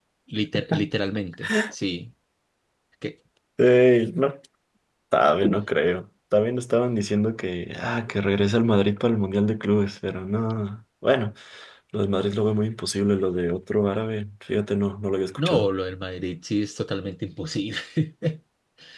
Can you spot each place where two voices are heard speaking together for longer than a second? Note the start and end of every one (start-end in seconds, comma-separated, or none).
none